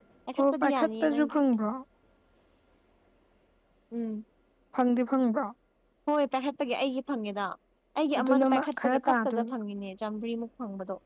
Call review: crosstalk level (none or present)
present